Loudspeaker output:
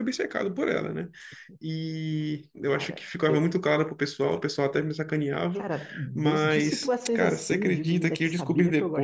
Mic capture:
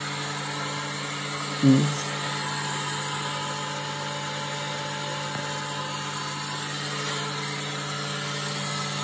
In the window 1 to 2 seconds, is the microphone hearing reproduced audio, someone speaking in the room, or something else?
user only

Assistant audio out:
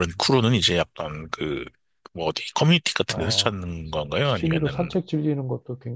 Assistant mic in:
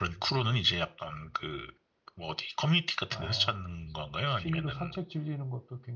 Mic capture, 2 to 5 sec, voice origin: echo only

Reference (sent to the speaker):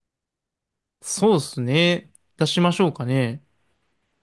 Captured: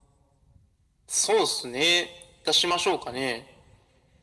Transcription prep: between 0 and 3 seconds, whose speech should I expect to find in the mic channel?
echo only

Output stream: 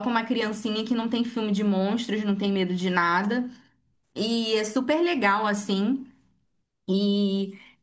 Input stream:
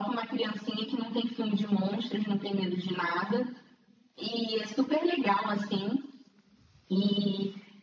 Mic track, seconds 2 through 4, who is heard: echo only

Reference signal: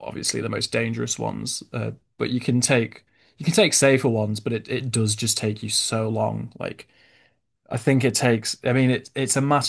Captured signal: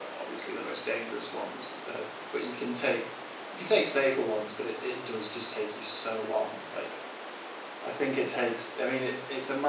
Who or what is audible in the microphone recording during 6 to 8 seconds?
echo only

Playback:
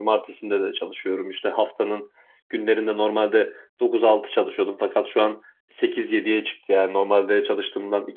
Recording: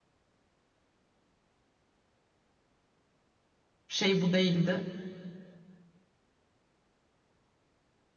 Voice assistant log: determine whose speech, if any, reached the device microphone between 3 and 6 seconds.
user only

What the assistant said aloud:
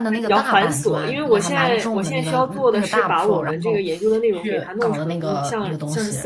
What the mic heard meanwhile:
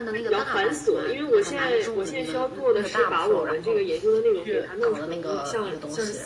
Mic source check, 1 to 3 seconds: echo only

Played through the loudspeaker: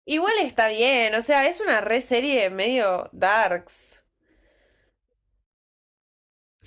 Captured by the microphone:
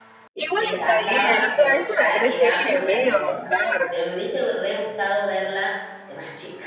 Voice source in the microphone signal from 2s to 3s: both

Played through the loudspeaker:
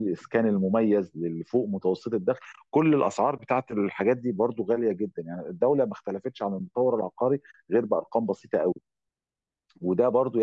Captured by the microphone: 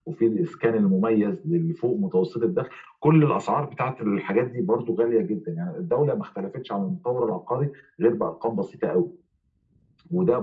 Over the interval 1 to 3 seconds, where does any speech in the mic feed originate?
echo only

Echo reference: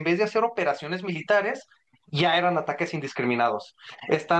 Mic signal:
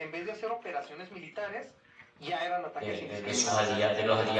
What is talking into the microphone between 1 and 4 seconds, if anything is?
both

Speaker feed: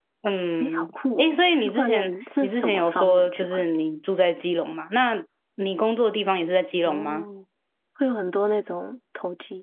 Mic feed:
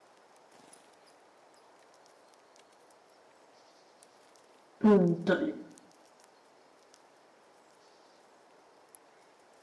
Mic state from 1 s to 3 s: neither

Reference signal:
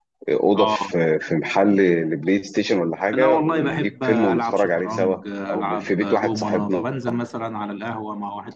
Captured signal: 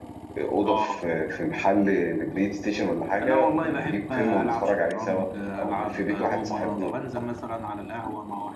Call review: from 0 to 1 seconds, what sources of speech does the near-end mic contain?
echo only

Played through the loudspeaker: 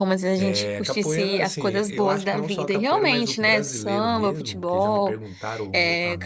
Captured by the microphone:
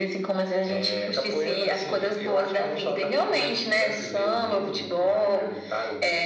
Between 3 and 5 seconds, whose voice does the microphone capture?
echo only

